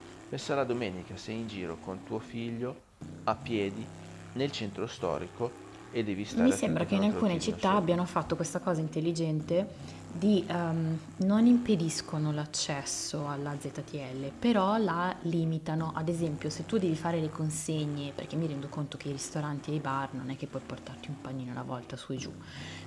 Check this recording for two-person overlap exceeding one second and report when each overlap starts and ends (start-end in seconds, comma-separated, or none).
6.3-8.0